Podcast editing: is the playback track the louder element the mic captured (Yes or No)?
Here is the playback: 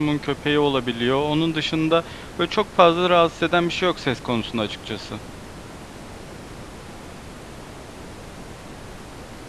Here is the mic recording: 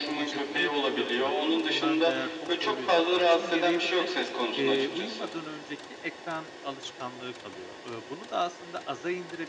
Yes